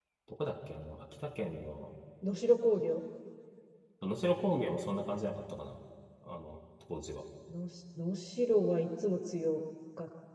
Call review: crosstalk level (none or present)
none